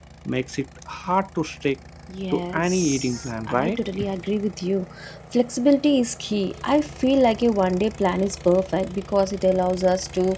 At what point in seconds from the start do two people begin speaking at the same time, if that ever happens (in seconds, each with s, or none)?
2.3 s